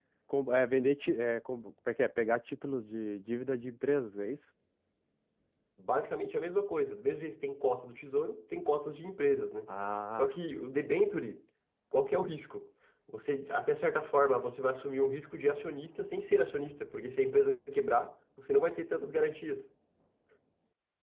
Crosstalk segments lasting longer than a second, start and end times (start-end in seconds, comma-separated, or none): none